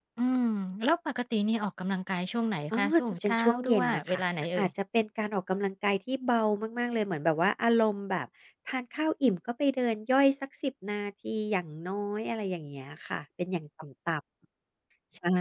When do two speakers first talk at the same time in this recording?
3 s

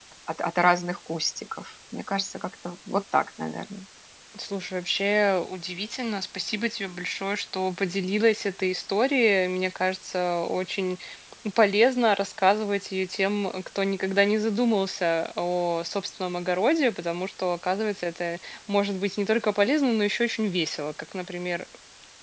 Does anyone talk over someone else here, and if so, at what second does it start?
none

